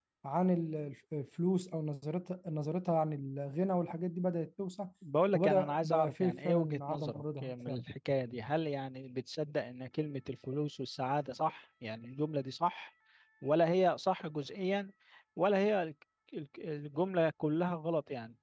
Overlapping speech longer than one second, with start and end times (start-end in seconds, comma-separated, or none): 5.3-7.8